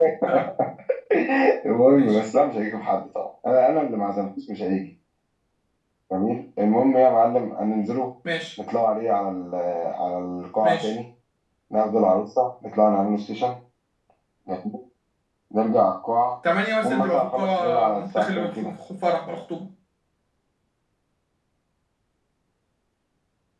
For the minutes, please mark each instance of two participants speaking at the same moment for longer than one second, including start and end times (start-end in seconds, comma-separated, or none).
16.8-18.7